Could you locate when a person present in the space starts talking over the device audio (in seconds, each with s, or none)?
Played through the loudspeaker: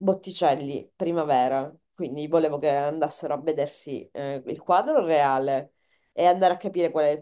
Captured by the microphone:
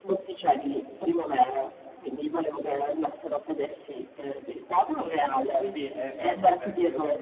5.5 s